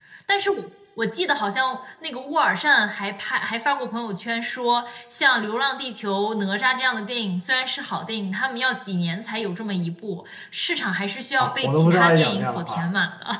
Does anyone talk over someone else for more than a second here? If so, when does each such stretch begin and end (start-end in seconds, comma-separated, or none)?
11.4-12.9